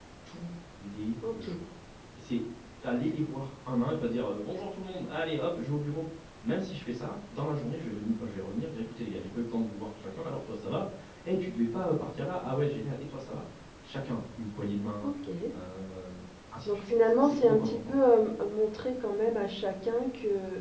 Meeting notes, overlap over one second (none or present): present